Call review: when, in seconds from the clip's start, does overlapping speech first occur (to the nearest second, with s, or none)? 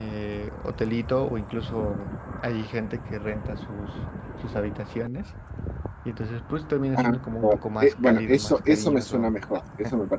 7 s